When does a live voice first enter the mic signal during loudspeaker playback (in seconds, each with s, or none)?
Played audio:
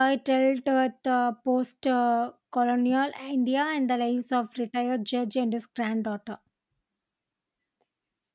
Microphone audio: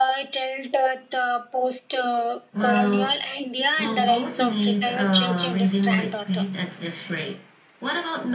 2.5 s